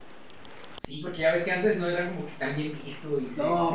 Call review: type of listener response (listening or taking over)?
taking over